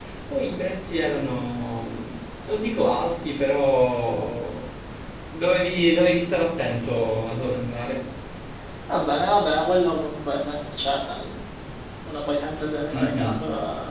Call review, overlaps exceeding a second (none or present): none